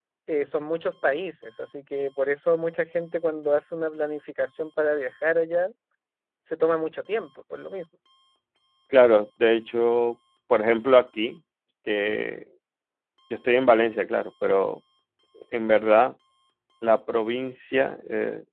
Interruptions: none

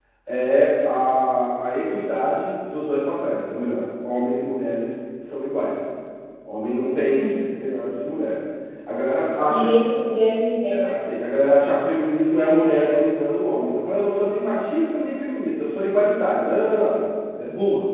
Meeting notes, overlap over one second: none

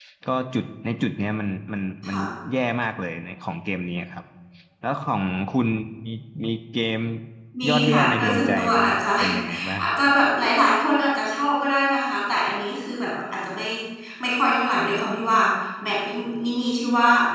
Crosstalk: present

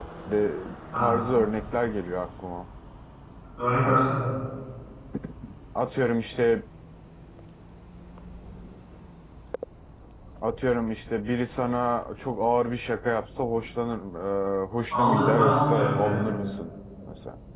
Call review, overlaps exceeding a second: present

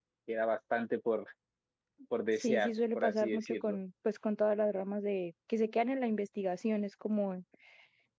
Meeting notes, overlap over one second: present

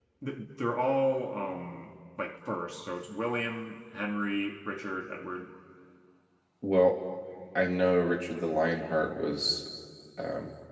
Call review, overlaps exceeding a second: none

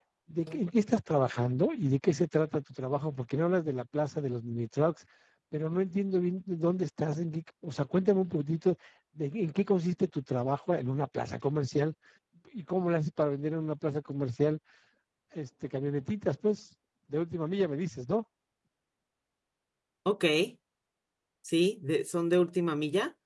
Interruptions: none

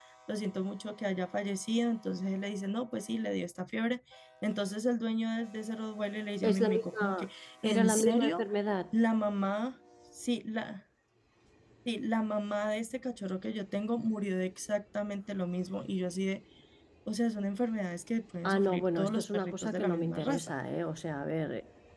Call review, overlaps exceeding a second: present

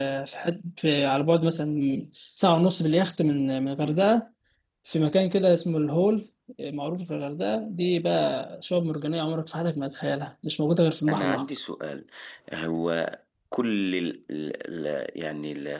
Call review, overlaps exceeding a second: none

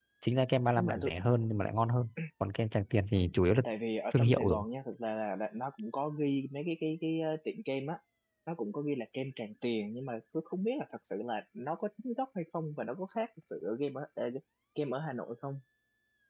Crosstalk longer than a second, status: none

